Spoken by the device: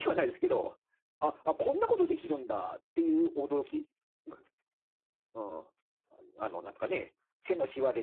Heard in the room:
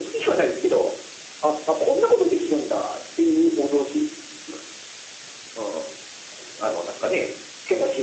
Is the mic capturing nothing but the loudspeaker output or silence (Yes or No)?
Yes